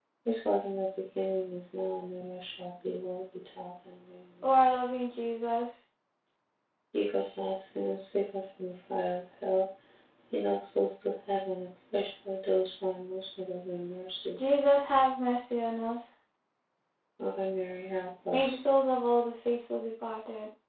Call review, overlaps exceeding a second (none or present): none